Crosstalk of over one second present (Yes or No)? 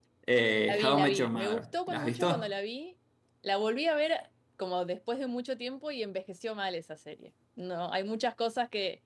Yes